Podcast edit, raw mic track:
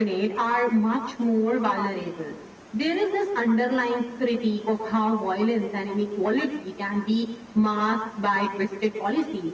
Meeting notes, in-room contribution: none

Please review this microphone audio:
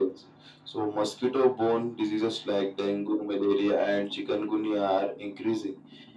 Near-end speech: none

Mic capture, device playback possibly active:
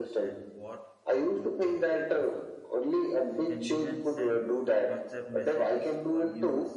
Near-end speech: present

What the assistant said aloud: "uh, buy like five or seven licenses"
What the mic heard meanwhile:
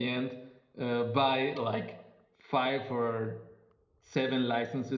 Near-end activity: none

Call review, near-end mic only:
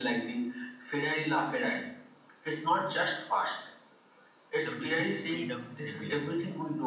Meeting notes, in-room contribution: present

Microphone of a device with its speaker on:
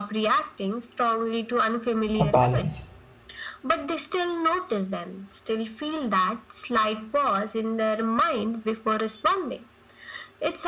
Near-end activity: present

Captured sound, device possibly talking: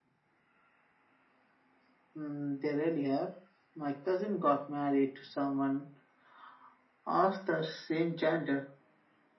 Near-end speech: none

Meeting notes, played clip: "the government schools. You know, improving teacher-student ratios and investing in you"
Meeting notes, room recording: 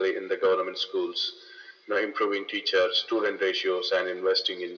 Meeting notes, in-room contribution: none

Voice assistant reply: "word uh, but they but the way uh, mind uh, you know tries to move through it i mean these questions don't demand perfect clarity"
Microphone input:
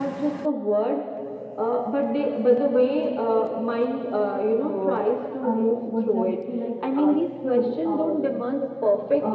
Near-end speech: present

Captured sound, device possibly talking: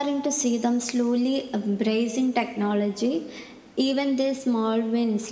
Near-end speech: none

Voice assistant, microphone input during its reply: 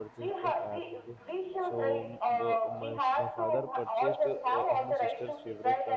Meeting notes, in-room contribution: present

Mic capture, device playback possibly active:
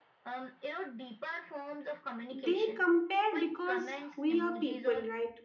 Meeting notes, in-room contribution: present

